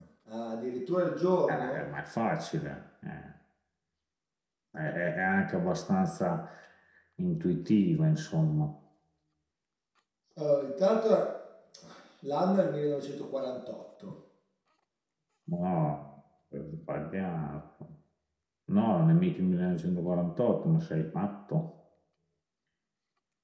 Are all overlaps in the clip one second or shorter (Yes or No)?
Yes